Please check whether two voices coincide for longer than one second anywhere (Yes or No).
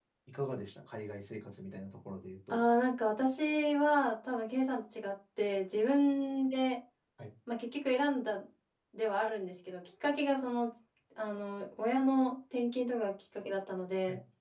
No